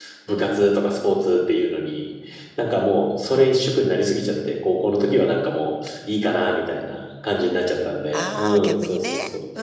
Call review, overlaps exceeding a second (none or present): present